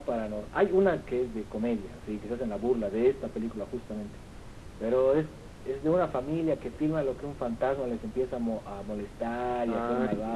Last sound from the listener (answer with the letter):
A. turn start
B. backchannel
B